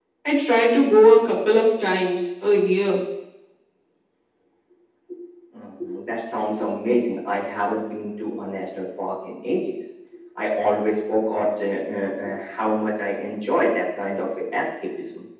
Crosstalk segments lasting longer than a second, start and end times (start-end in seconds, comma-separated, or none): none